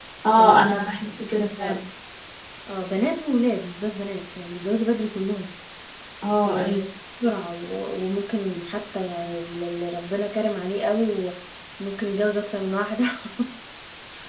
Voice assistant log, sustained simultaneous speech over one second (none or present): present